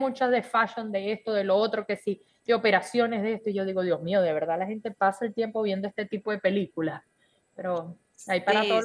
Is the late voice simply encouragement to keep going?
No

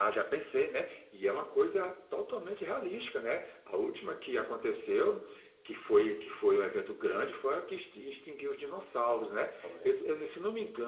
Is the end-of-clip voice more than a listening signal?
No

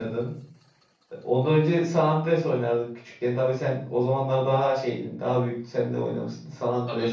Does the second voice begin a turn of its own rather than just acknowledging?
Yes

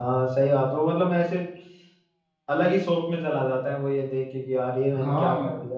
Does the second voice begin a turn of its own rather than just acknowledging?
Yes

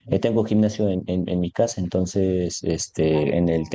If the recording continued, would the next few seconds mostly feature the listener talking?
No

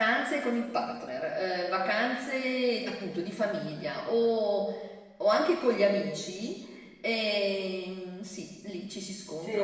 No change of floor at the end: No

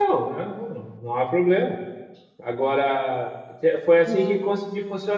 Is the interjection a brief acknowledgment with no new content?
Yes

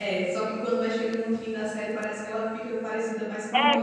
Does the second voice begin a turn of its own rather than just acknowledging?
Yes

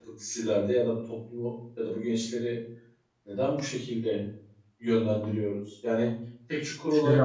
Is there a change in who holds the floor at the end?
No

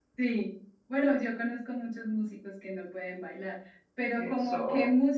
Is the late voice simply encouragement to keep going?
Yes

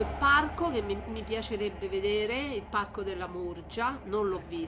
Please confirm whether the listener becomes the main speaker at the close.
No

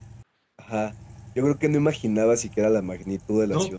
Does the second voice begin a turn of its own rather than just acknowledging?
Yes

